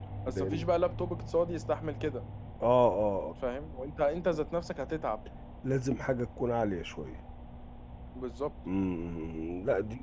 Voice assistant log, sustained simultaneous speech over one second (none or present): none